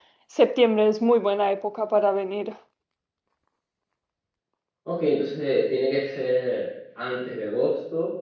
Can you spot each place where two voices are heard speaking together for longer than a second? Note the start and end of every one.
none

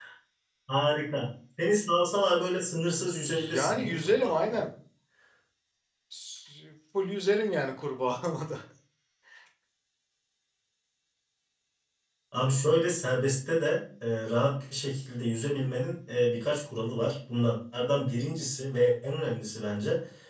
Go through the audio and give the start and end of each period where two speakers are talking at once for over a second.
3.3-4.7

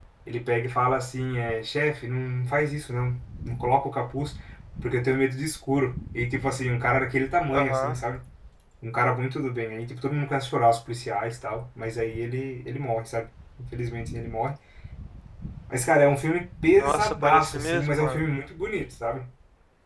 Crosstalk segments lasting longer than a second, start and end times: 16.8-18.2

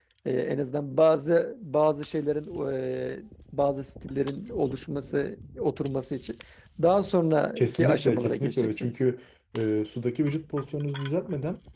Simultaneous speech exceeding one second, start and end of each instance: 7.6-8.9

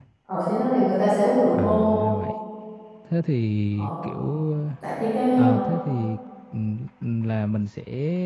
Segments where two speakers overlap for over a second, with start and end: none

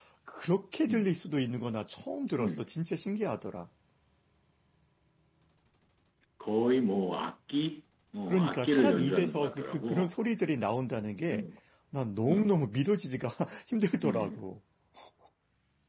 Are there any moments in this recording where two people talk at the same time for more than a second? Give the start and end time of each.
8.3-10.1

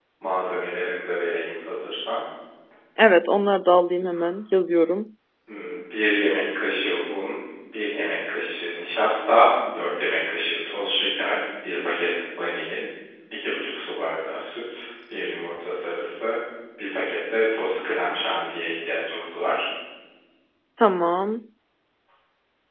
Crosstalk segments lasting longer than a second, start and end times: none

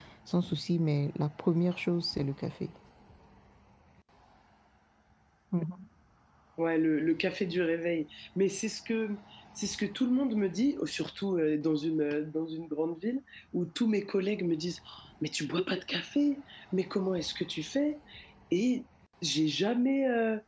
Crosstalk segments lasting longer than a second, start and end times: none

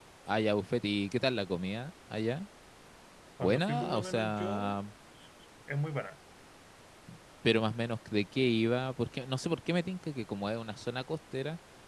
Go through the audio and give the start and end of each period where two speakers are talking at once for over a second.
3.4-4.8

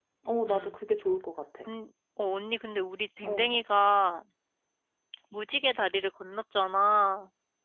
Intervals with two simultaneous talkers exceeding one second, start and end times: none

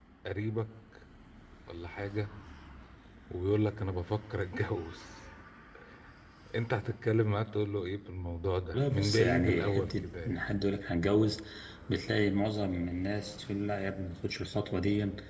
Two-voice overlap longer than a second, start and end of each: 8.7-10.4

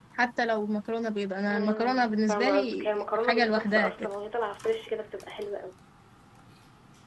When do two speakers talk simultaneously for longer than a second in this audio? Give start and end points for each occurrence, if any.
1.5-4.1

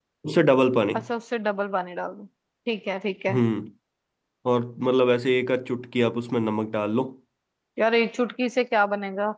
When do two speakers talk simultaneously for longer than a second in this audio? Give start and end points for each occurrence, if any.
none

